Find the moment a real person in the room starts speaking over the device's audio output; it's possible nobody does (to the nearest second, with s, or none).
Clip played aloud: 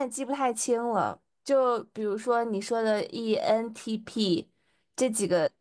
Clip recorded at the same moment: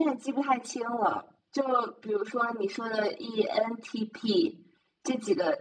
none